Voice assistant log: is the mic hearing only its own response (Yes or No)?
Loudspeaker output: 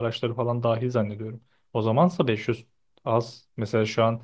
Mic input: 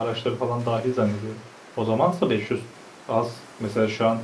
Yes